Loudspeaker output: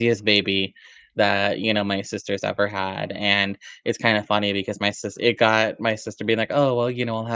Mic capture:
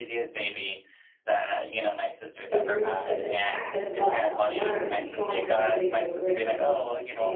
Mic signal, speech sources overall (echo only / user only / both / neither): both